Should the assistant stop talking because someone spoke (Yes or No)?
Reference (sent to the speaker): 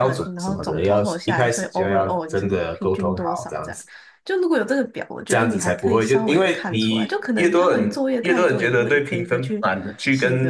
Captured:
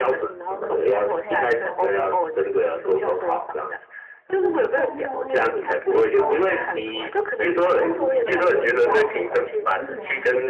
Yes